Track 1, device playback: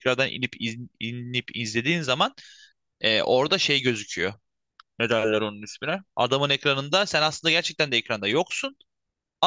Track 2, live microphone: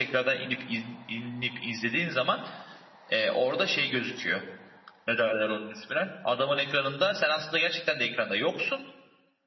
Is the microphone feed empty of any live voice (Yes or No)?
Yes